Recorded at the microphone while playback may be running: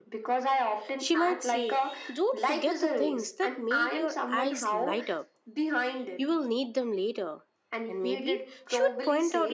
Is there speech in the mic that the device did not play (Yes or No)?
Yes